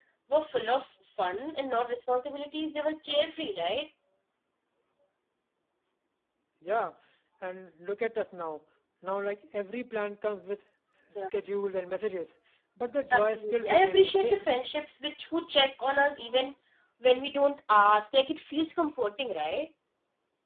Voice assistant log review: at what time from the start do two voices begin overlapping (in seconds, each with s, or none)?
13.1 s